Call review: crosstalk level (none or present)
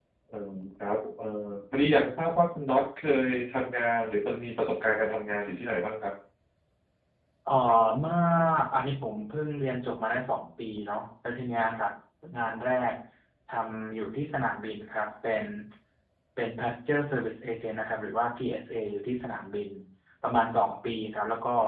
none